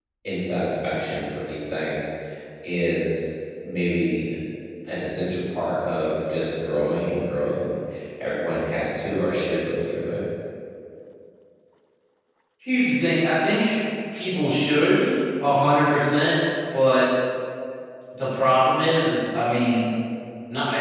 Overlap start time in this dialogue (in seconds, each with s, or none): none